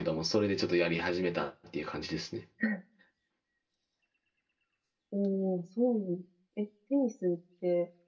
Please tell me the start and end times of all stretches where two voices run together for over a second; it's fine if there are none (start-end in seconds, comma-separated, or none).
none